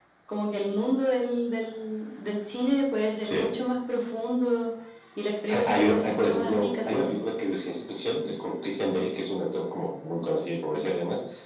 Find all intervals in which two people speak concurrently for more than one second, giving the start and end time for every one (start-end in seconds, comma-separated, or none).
5.5-7.2